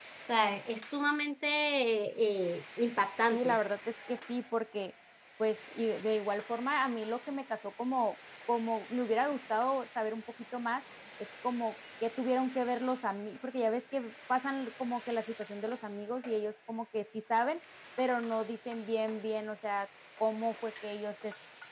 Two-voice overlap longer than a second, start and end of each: none

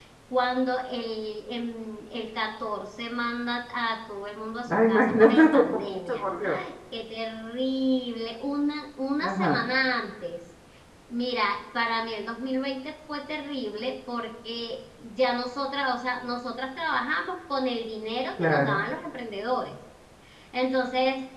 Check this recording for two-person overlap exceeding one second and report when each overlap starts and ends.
4.7-6.6

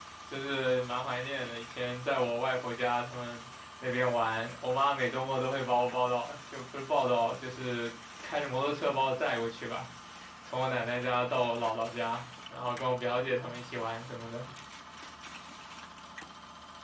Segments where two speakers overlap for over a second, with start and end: none

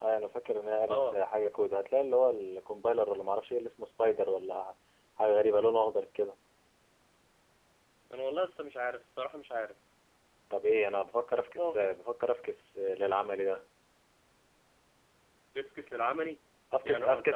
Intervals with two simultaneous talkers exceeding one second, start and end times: none

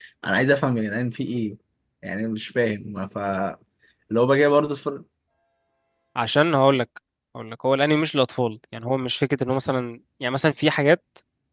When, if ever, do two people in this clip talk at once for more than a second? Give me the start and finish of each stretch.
none

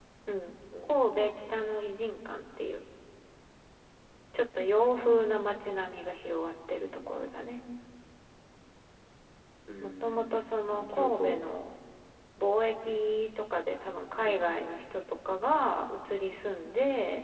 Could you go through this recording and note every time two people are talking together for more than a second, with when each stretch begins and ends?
9.8-11.5

